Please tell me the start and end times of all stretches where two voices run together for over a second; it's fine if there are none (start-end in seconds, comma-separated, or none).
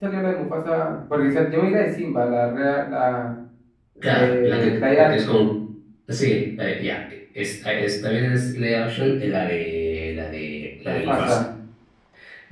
4.0-5.4